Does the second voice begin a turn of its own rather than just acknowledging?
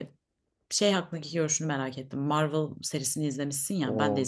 No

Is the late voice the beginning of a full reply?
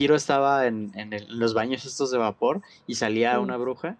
No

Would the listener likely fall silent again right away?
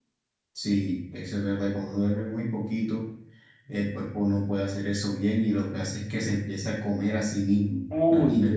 No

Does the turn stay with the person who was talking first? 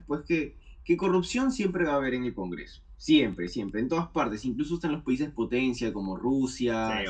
Yes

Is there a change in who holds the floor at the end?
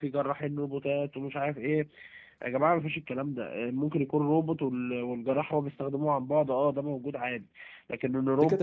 Yes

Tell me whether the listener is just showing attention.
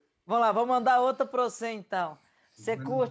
Yes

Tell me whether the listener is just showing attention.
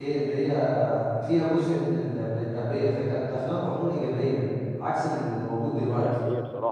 No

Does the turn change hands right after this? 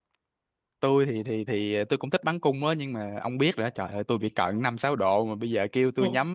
No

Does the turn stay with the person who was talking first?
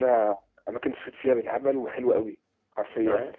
Yes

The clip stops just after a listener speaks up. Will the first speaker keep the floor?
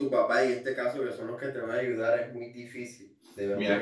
No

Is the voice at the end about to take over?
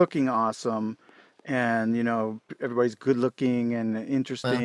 No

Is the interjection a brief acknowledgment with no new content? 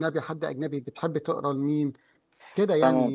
No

